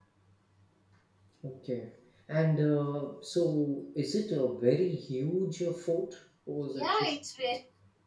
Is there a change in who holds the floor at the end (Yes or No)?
Yes